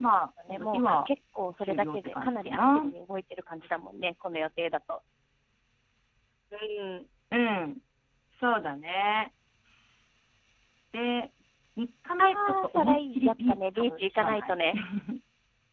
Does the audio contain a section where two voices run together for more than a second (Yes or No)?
Yes